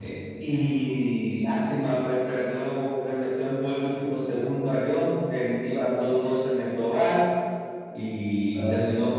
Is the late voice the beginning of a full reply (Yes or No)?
No